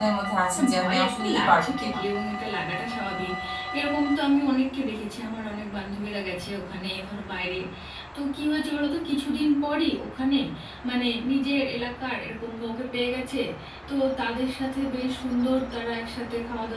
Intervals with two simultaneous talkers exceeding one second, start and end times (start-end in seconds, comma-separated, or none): 0.5-2.0